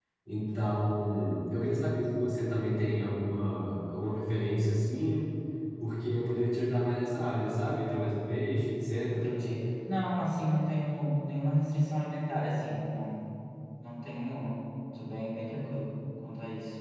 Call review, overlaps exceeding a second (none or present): none